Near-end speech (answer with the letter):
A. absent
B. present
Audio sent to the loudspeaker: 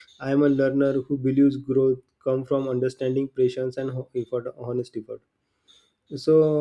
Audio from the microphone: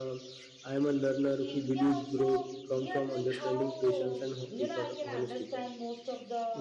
B